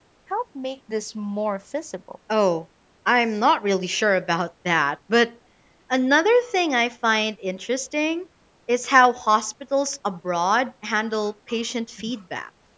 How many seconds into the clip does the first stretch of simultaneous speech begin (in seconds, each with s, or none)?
none